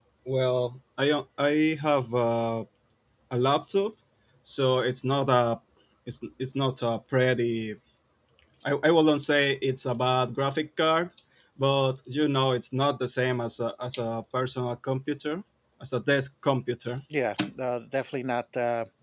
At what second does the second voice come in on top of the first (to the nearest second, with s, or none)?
none